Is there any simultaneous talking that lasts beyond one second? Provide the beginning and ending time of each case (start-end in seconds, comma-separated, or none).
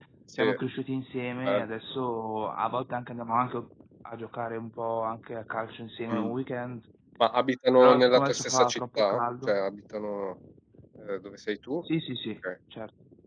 7.8-9.6